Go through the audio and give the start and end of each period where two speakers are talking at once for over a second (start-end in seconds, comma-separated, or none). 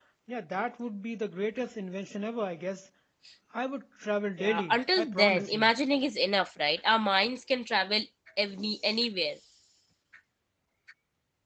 4.4-5.7